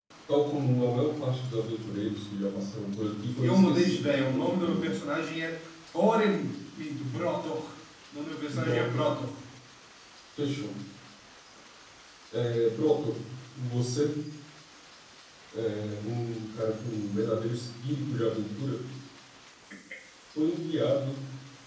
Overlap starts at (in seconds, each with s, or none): 3.4 s